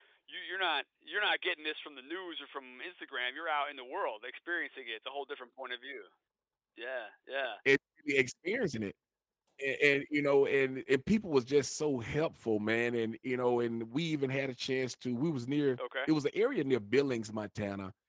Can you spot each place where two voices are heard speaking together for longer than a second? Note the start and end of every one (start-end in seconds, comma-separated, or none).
none